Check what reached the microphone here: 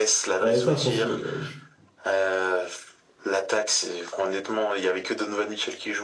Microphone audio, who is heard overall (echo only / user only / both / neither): both